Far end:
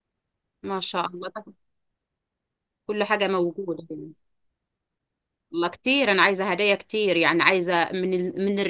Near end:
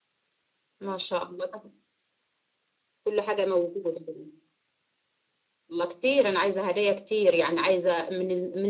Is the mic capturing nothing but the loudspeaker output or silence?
Yes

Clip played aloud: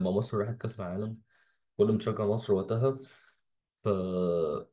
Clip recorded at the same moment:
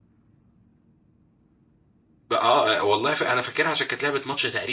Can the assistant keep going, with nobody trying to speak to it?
No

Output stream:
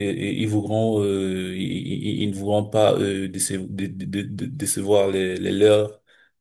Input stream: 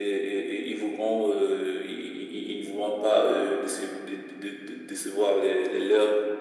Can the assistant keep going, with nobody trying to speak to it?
Yes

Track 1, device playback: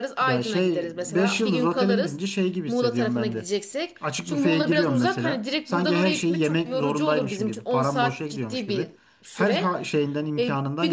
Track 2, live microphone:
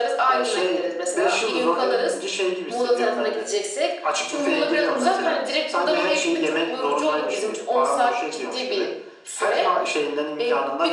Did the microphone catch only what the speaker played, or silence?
Yes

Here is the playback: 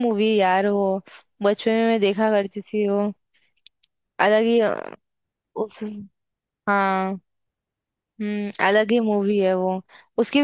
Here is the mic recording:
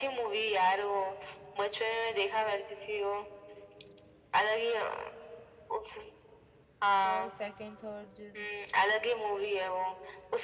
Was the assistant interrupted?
Yes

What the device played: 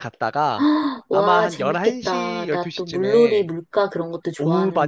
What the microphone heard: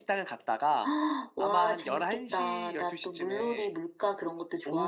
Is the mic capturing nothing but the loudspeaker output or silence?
Yes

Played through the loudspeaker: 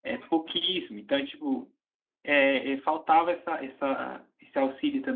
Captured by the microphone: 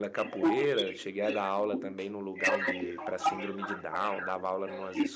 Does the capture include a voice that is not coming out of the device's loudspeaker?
Yes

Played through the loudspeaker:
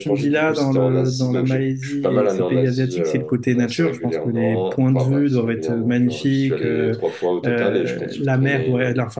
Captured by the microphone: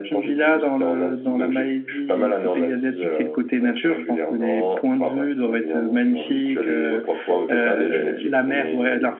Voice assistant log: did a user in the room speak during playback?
Yes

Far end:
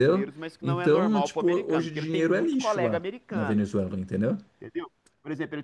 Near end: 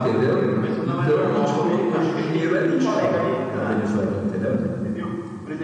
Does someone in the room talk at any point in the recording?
No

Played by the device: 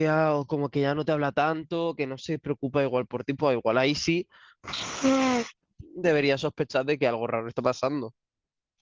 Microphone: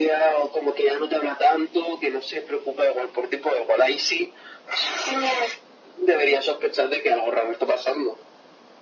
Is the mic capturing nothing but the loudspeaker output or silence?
Yes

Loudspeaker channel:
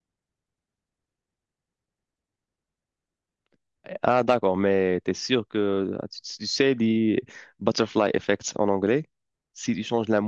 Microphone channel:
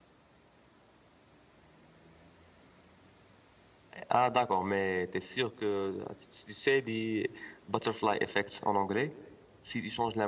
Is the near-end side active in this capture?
No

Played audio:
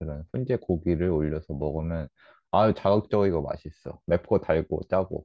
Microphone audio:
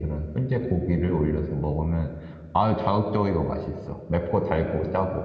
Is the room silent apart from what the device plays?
Yes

